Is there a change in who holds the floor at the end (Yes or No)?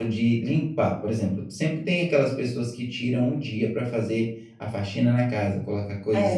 No